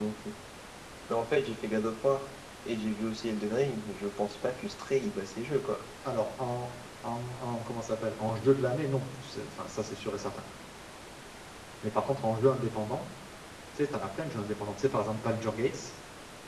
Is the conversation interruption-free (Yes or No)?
Yes